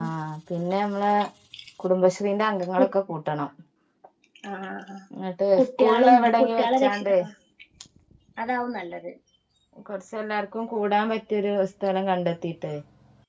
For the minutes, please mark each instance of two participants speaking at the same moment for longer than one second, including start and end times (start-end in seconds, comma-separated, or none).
5.6-7.1